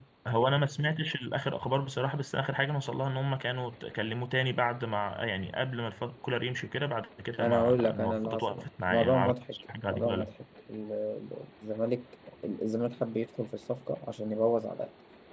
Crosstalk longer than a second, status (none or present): present